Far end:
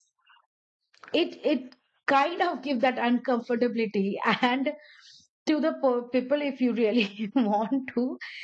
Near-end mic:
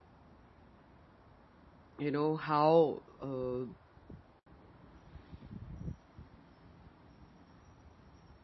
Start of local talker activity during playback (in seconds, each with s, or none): 2.0 s